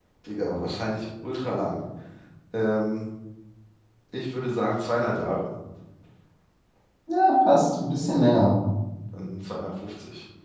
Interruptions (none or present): none